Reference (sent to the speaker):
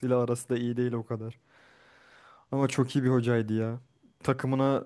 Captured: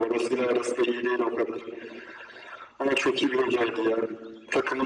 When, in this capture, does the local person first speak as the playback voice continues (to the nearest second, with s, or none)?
none